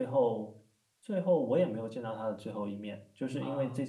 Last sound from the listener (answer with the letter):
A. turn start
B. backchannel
B